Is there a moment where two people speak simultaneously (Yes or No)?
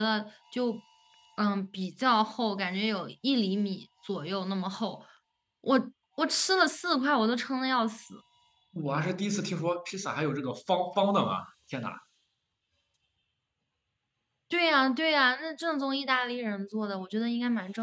No